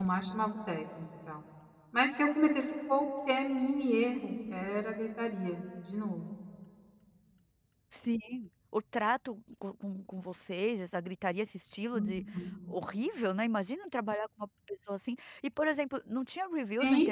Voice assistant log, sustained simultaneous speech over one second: none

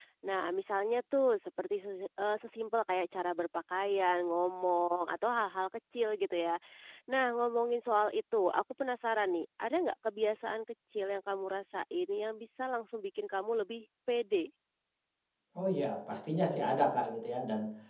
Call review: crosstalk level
none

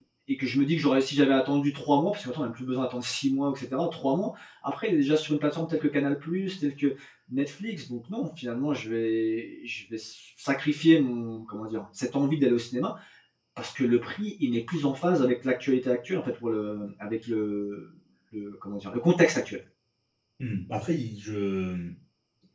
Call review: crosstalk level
none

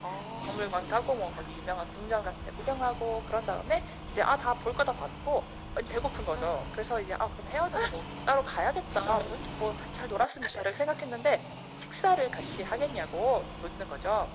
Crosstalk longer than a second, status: none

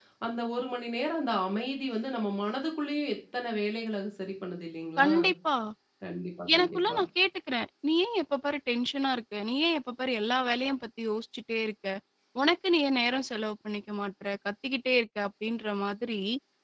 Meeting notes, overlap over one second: none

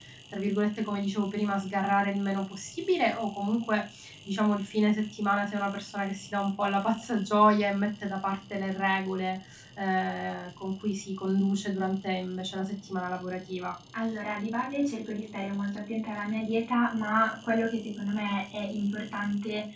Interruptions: none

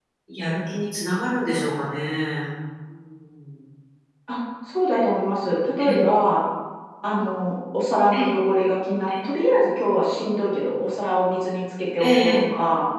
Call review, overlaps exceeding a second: none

